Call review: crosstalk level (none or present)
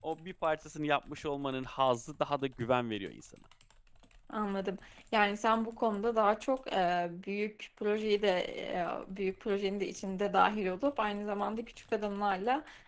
none